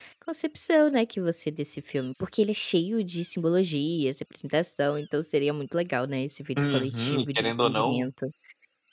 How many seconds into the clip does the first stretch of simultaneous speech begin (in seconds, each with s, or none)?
6.6 s